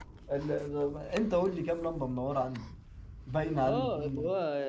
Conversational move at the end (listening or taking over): taking over